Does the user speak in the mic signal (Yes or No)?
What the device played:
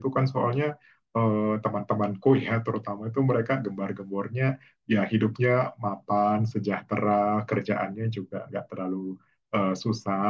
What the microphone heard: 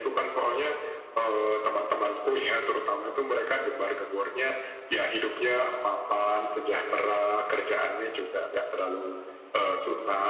No